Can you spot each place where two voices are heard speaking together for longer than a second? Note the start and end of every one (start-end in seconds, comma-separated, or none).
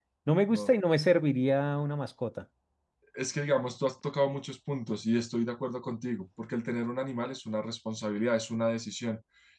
none